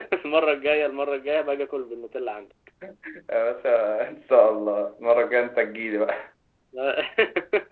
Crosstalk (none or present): none